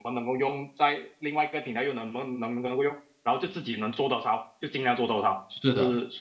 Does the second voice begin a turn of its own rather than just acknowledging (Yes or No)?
Yes